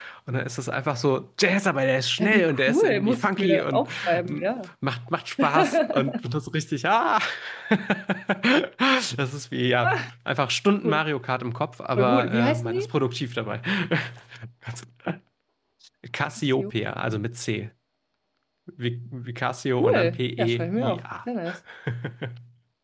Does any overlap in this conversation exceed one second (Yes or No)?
Yes